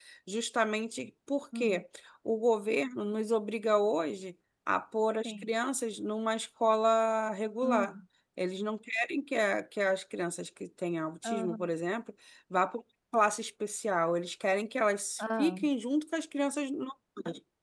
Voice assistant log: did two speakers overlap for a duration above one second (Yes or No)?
No